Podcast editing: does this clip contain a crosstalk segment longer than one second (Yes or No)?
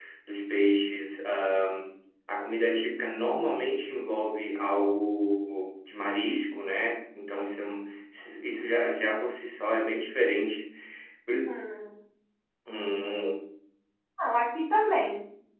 No